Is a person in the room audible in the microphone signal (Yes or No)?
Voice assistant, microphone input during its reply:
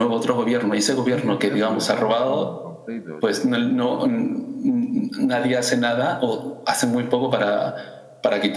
Yes